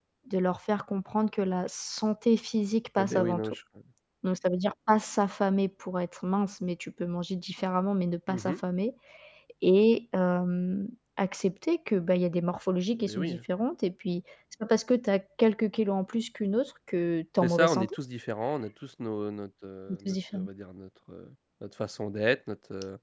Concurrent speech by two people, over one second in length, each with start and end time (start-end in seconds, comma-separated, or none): none